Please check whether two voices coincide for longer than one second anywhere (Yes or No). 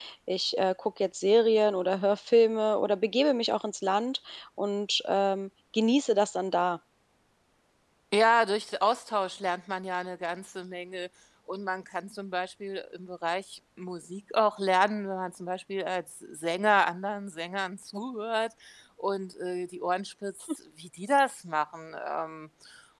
No